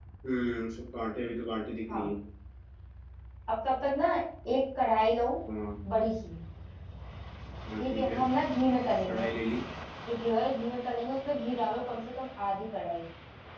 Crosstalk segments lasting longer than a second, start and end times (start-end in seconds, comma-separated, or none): none